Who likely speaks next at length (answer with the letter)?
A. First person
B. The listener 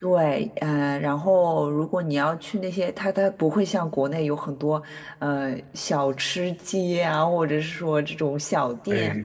B